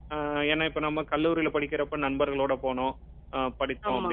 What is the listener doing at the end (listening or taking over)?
listening